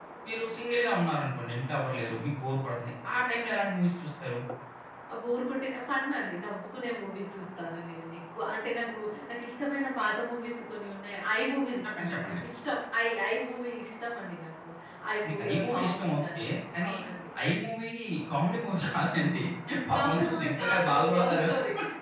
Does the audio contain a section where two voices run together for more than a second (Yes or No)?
Yes